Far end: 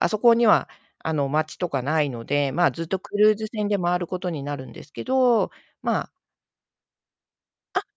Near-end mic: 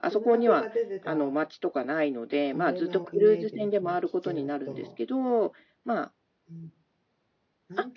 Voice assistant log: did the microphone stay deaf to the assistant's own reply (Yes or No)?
No